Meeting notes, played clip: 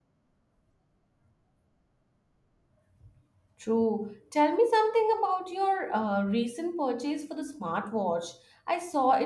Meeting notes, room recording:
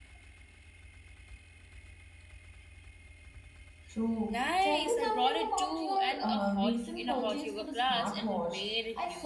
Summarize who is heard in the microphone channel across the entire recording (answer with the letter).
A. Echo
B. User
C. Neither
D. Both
D